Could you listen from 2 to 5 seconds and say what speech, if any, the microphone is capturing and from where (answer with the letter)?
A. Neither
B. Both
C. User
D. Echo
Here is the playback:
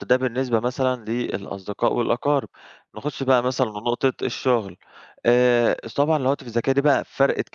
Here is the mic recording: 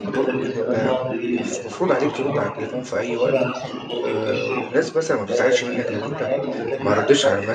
B